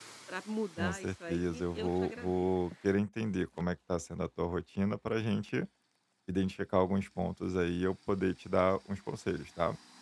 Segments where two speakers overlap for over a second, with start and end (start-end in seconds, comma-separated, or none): 0.8-2.5